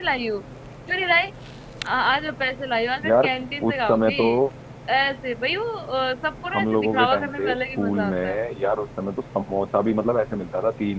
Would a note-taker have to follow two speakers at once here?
Yes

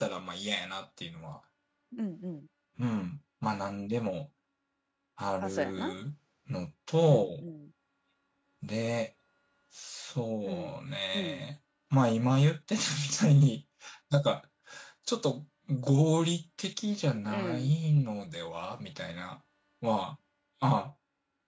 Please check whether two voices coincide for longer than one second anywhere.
No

